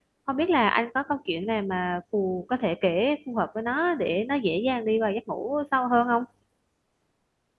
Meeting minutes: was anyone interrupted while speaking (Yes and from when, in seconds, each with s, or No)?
No